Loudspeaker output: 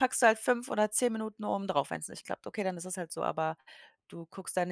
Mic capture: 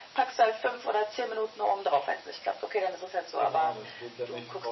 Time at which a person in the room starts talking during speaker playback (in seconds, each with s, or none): 3.4 s